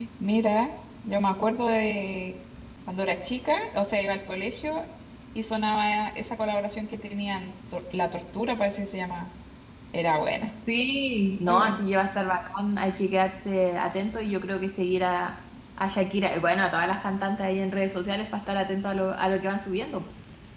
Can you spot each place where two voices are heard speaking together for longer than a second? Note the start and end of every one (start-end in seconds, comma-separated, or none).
none